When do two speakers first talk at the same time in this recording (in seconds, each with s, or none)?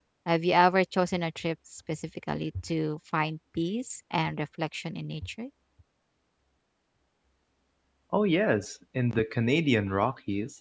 none